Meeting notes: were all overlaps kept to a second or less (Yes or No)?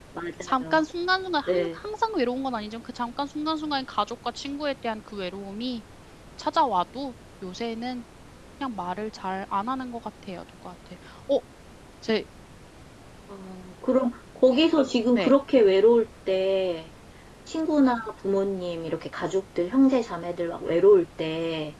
Yes